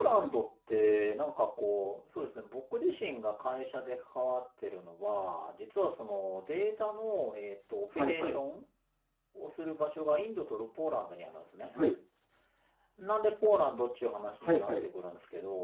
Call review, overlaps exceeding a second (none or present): none